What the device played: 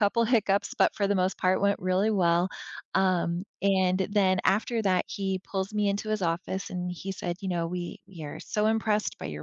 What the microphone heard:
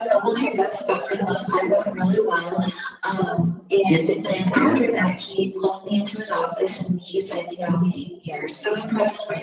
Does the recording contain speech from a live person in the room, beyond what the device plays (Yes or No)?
Yes